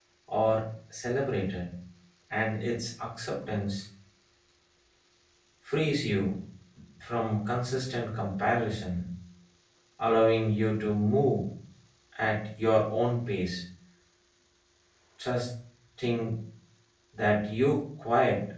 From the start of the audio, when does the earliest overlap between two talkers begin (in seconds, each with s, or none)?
none